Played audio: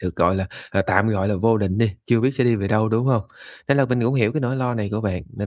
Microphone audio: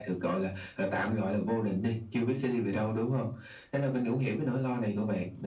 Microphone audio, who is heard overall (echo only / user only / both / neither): echo only